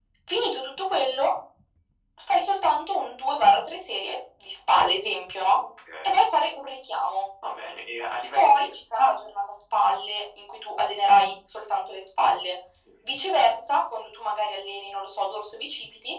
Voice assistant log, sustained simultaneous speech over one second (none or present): none